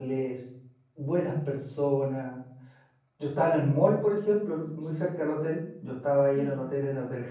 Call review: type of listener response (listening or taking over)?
listening